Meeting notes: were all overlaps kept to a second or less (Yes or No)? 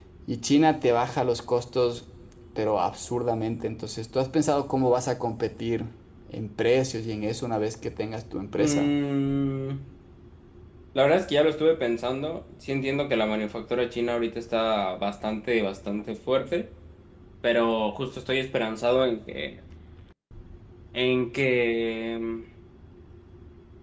Yes